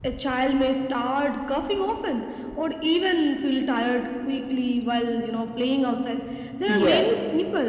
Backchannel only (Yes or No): Yes